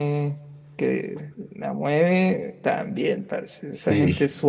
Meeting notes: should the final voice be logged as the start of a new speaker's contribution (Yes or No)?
No